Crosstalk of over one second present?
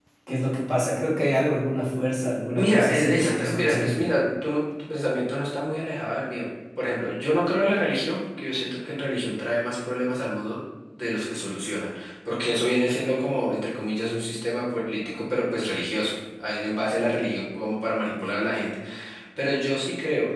Yes, from 2.5 s

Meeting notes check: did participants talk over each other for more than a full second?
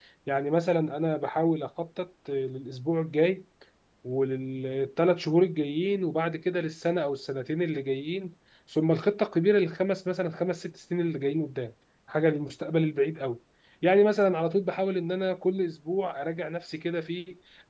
No

